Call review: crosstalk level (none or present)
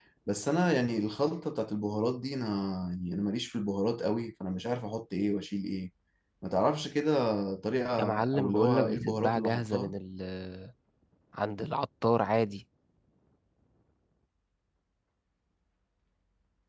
present